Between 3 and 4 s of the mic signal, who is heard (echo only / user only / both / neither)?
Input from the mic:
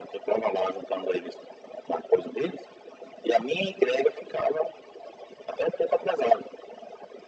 echo only